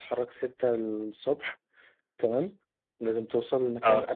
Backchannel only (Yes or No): Yes